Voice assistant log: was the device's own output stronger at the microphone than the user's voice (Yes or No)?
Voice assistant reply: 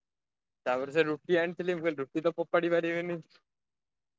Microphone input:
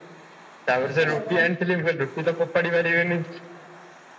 Yes